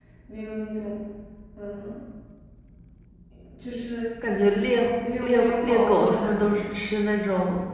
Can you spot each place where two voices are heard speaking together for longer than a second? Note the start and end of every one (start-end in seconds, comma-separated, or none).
5.2-6.6